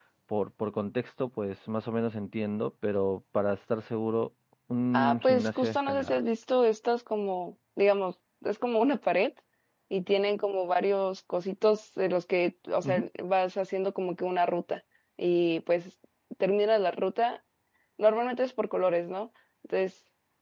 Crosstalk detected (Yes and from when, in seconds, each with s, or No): Yes, from 4.9 s